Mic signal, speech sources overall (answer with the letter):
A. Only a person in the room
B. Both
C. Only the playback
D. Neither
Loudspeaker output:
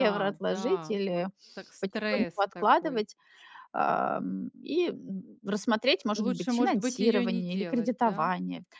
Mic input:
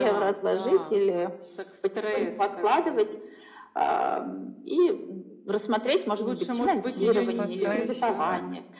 B